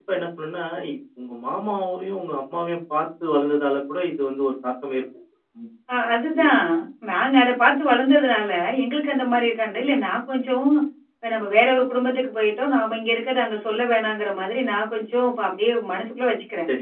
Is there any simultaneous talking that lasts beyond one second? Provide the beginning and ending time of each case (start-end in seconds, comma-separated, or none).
none